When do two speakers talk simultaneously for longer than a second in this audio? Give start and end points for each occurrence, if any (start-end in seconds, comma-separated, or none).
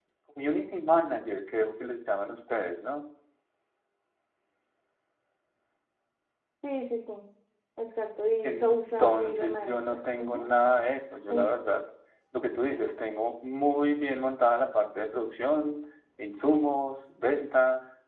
8.4-10.5